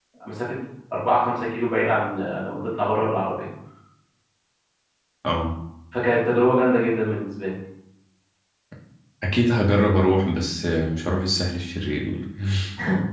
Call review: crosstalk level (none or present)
none